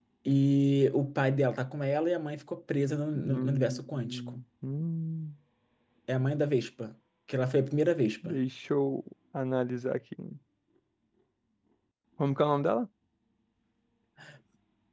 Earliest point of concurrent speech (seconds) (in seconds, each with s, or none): 3.1 s